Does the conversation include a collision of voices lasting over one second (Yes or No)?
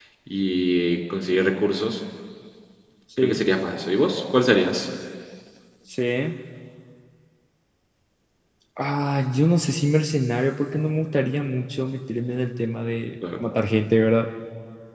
No